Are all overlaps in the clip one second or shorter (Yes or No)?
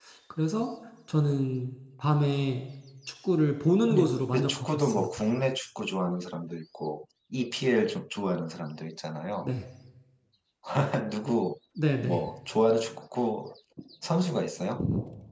No